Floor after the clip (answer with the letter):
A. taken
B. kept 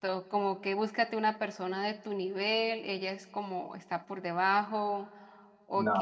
B